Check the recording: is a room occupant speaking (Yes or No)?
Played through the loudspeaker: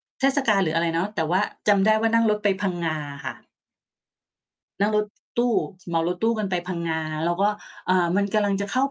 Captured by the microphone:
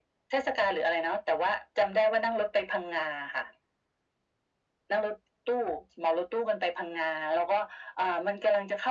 No